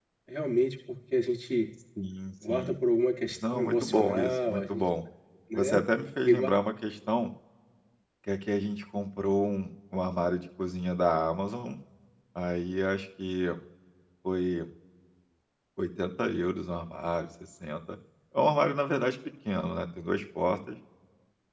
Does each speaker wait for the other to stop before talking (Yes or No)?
No